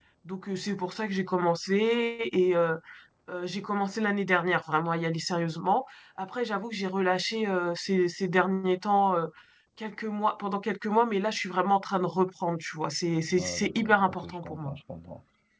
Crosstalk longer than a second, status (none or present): present